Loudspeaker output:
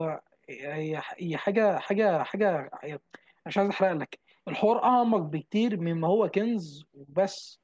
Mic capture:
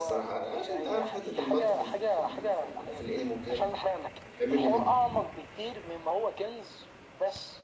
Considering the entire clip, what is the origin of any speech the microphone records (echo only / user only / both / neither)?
both